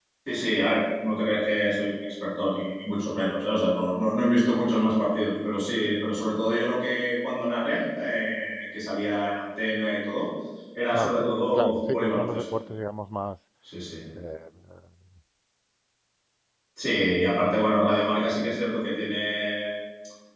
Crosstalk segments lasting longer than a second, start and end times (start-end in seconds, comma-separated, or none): 10.9-12.4